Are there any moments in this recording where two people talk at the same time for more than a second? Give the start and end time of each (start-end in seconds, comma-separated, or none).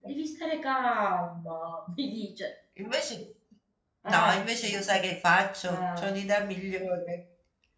none